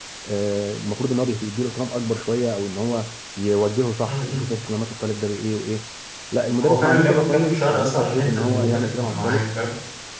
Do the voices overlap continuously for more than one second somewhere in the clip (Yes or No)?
Yes